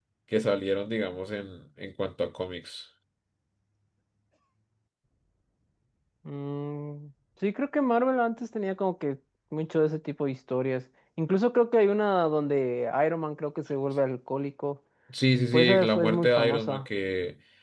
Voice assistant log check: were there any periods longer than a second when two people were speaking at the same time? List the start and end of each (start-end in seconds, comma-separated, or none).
15.5-16.9